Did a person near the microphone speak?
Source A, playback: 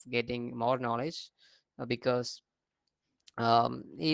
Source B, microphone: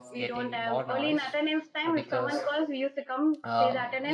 Yes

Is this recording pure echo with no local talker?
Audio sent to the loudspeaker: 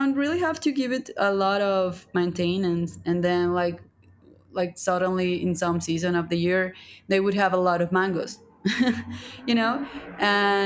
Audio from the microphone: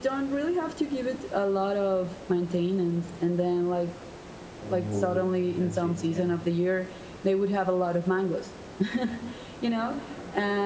No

